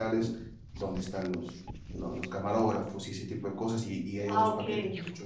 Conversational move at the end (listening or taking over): listening